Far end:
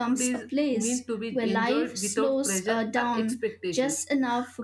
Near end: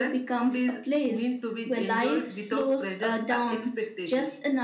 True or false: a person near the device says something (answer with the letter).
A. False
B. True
A